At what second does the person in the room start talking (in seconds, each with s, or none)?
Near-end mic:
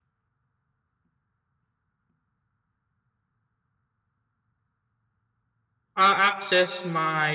6.0 s